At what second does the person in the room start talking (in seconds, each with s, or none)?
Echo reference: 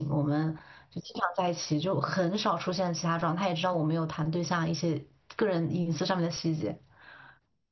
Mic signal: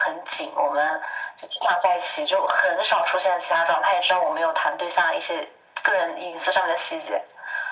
none